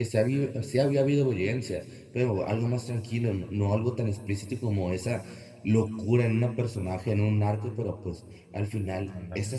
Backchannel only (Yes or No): Yes